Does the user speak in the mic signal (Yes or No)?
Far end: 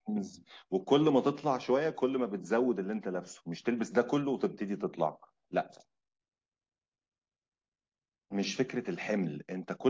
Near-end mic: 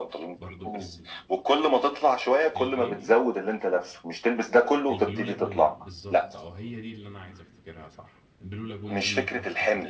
Yes